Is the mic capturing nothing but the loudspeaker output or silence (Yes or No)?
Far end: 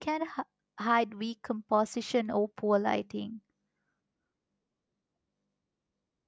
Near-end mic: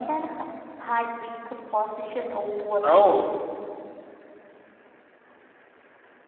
No